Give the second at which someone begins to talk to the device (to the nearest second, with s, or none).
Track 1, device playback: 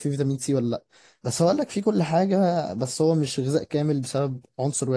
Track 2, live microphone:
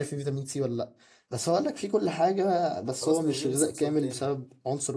3 s